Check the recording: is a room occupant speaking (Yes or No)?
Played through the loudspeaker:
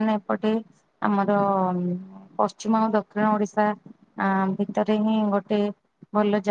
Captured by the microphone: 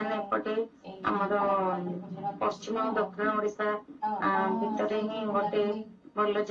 Yes